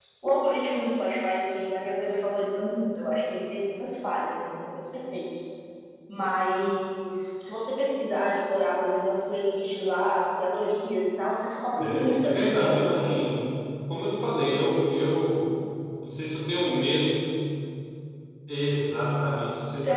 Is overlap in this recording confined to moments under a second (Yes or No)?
No